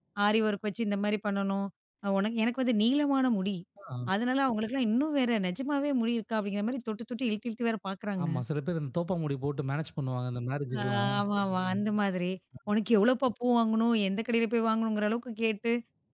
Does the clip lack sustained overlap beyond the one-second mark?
Yes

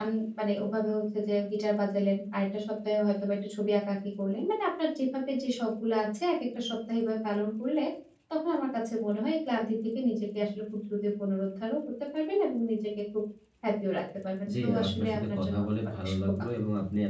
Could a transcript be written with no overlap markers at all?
No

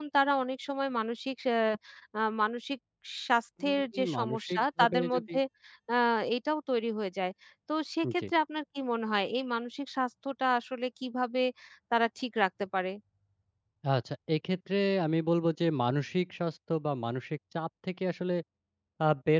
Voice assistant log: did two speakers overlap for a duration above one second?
Yes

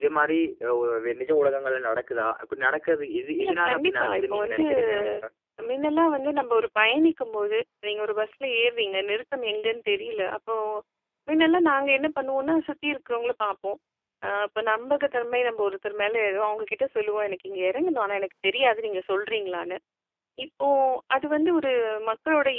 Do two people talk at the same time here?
Yes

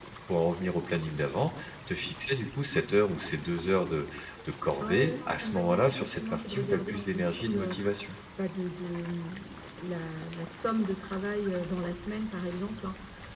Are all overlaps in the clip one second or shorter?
No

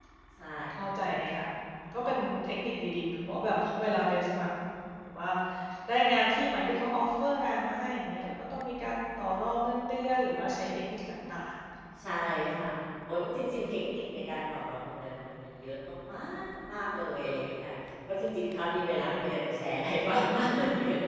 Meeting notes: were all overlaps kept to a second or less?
Yes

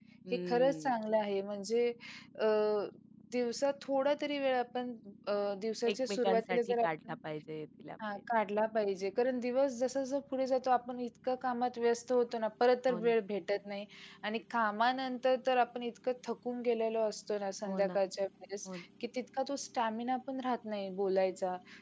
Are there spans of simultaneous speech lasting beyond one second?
Yes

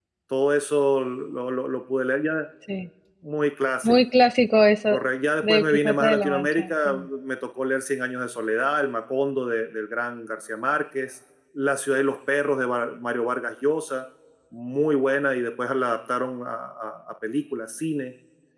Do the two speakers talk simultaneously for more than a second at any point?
Yes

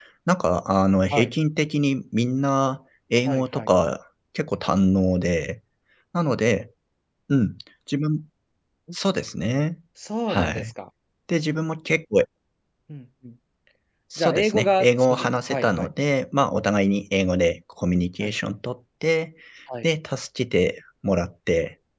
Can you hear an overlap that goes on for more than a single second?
Yes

